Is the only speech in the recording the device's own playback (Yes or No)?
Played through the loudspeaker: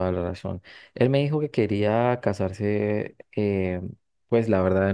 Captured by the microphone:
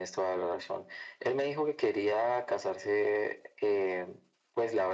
Yes